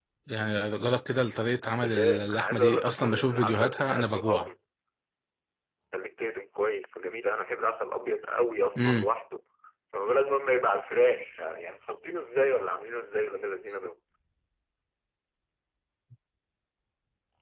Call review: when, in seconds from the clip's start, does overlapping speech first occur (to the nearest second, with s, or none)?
2 s